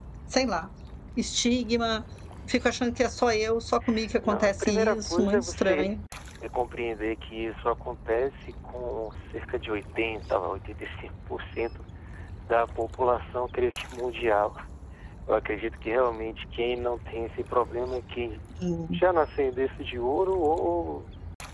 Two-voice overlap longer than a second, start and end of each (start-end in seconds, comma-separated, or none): 4.2-5.9